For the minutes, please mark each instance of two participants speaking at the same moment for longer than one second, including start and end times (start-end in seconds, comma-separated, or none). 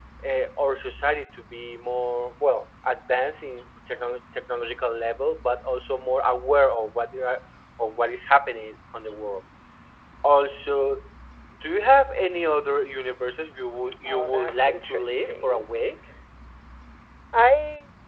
14.0-15.6